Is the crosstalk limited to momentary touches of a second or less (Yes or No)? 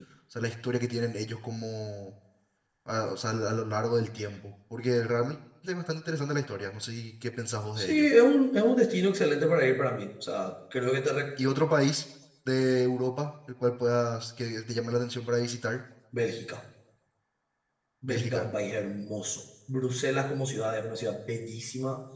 Yes